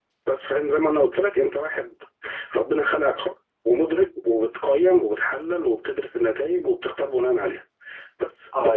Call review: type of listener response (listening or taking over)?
taking over